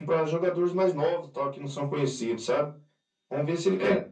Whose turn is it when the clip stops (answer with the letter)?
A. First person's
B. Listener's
A